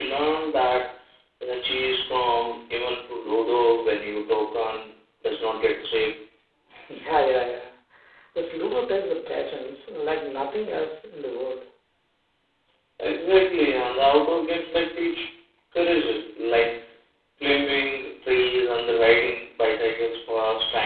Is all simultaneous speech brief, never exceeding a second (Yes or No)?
Yes